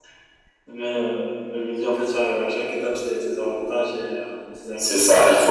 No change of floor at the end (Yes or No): No